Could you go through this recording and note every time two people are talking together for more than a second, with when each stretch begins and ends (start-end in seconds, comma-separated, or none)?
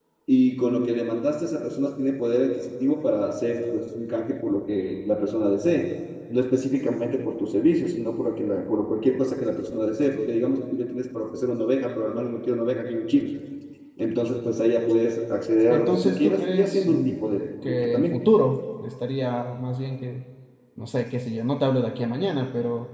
15.7-18.2